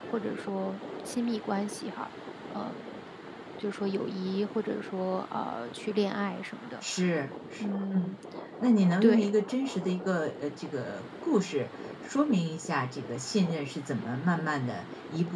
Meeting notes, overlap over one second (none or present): none